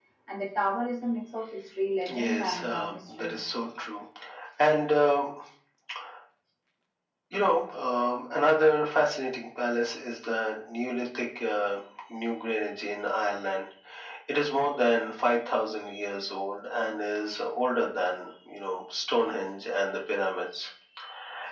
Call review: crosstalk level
present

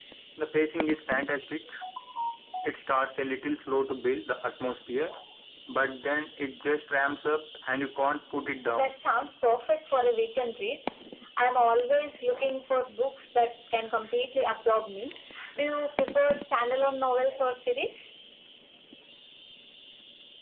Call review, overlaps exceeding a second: none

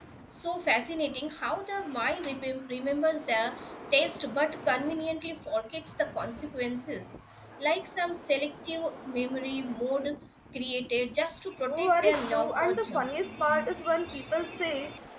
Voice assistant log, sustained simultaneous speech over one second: present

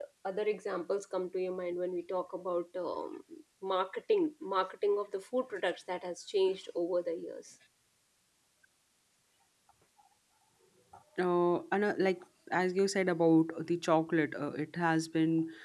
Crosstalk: none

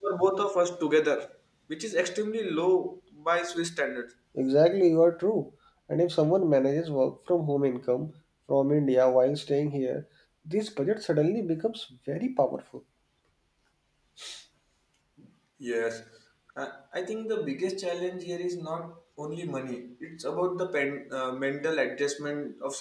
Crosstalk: none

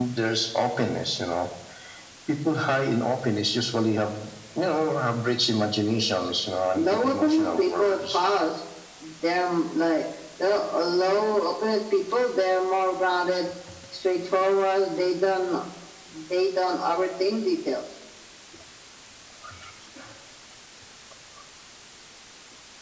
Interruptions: present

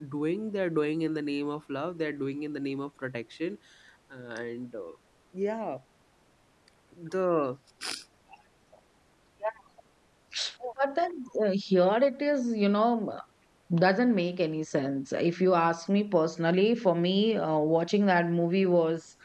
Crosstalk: none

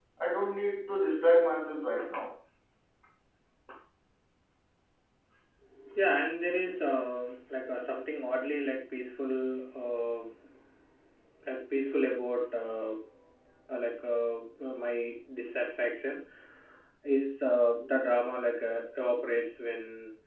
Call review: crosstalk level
none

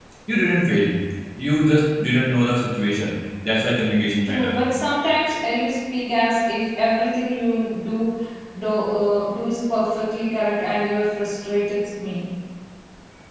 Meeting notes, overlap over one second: none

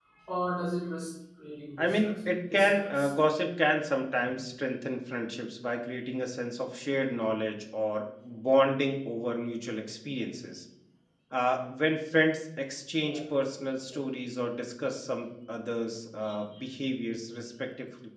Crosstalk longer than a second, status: present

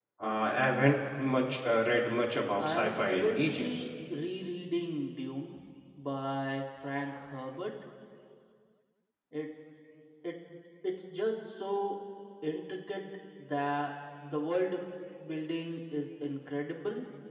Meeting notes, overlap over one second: present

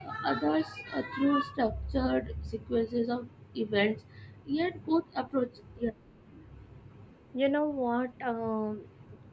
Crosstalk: none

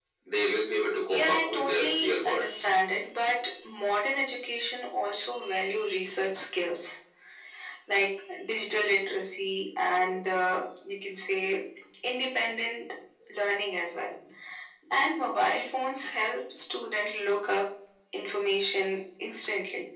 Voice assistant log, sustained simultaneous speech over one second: present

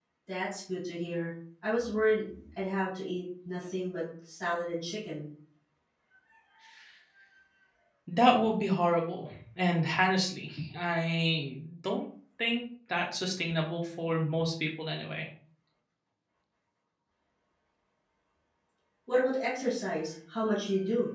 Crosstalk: none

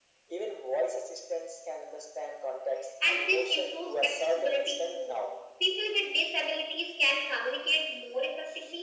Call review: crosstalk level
present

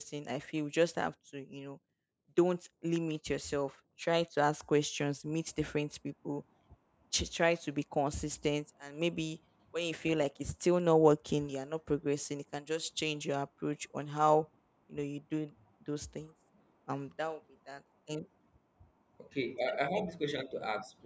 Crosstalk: none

